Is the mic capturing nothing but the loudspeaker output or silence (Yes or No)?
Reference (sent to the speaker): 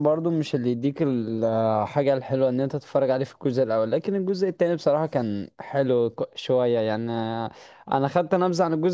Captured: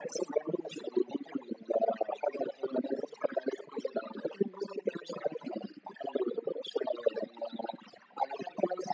Yes